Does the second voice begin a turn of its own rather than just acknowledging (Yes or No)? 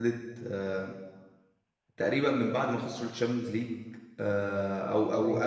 No